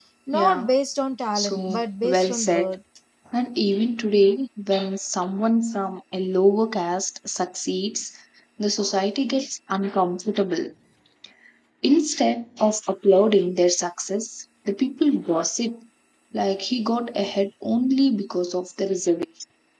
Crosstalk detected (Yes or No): Yes